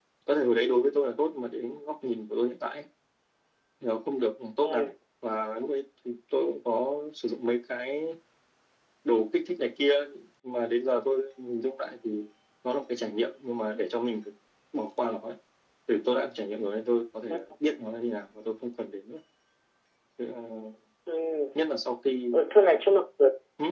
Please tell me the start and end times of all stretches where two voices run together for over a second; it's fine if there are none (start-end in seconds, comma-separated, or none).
none